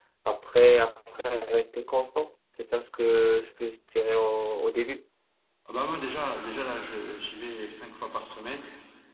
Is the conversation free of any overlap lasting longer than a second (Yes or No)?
Yes